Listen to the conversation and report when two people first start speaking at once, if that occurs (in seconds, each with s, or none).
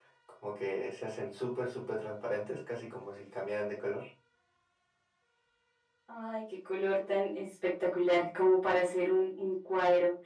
none